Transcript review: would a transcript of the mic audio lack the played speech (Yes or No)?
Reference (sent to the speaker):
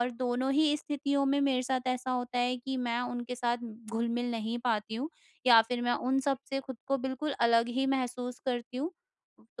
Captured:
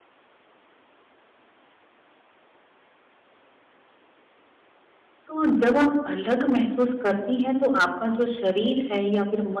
Yes